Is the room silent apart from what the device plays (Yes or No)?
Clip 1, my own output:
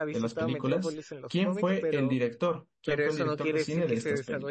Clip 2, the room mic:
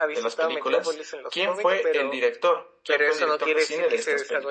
Yes